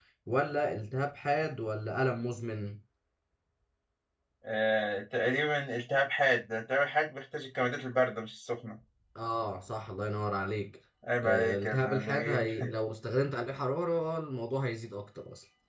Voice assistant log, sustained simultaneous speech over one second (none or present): present